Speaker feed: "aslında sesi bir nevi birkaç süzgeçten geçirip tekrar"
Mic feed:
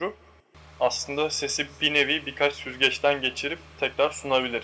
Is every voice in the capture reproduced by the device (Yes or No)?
Yes